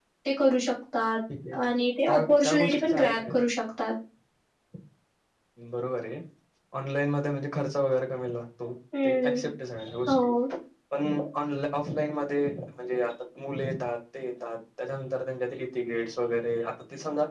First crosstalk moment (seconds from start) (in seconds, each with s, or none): 2.1 s